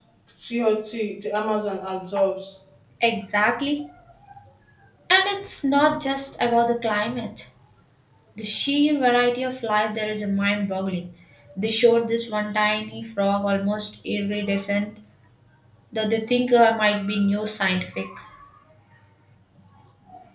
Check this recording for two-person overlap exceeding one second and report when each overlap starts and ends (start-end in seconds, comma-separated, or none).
none